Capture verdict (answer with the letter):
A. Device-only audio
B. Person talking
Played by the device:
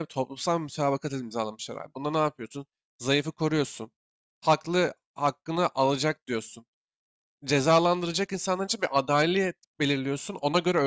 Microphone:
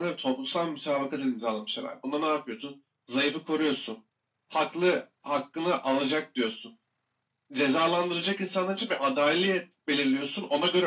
A